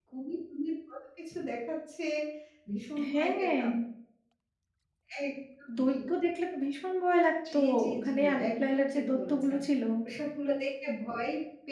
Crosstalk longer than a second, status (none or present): present